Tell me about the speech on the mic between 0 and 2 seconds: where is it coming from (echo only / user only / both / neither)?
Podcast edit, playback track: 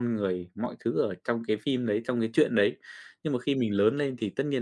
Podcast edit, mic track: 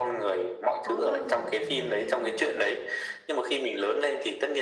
both